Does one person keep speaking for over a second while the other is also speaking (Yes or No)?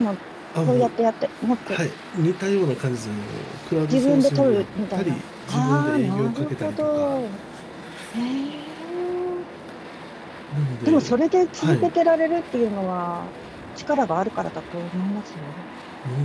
Yes